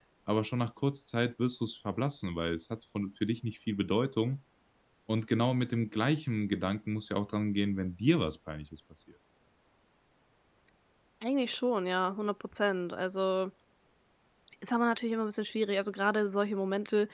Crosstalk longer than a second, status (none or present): none